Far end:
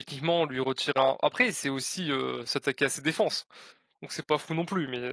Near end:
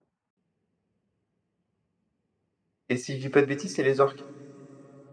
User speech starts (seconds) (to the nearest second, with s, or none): 3 s